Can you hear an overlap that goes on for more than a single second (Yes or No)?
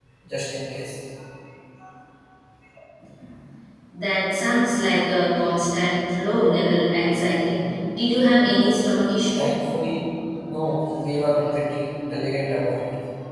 No